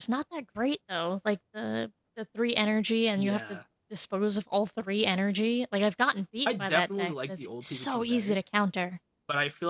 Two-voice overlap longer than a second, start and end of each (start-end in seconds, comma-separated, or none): 6.5-8.4